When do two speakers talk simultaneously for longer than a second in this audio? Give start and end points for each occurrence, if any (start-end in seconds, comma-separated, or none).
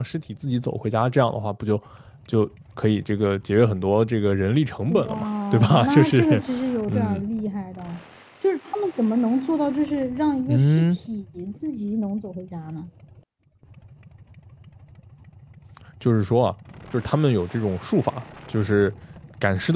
4.9-6.4